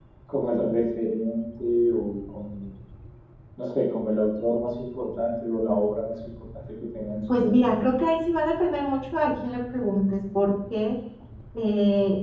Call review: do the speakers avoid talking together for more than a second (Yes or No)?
Yes